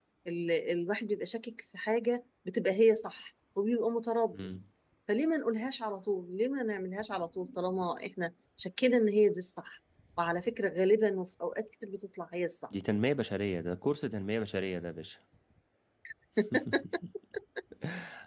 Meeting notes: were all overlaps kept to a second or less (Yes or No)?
Yes